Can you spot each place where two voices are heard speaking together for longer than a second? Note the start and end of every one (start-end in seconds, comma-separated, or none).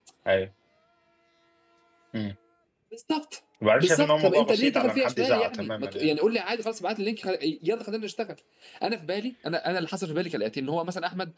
3.8-6.1